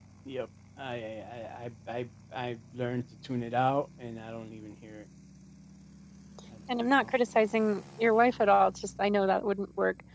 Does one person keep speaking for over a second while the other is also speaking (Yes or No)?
No